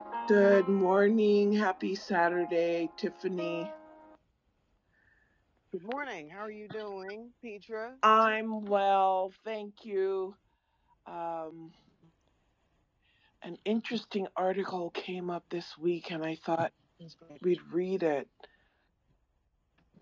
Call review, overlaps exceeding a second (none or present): none